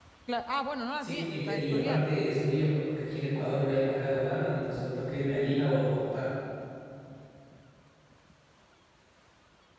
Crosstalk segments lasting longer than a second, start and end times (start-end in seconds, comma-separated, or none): 1.0-2.2